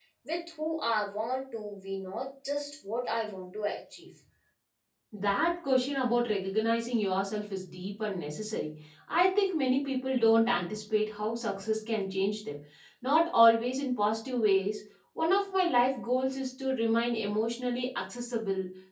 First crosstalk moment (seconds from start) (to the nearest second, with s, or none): none